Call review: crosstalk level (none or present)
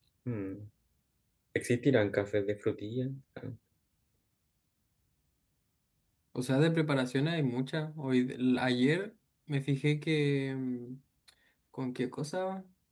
none